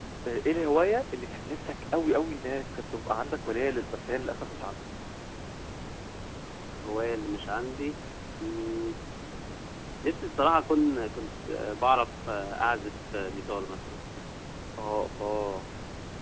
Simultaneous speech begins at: none

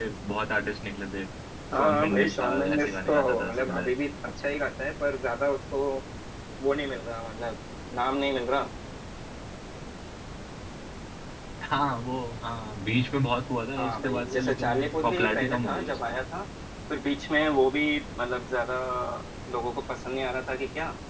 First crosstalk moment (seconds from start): 1.8 s

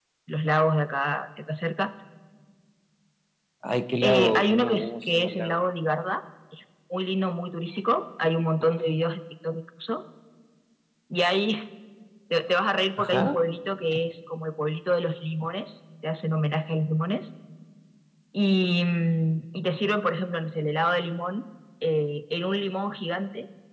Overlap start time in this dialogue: 4.0 s

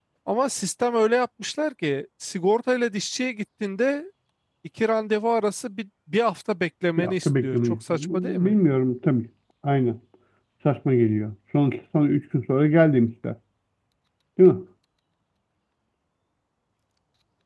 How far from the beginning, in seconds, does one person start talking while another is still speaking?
7.0 s

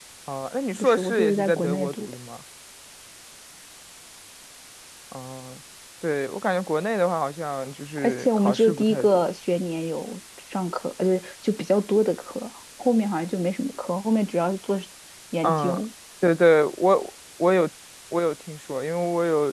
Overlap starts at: 0.8 s

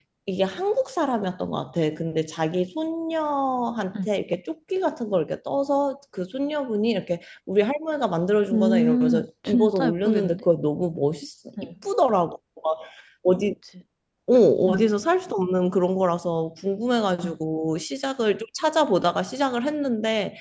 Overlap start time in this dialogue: 8.5 s

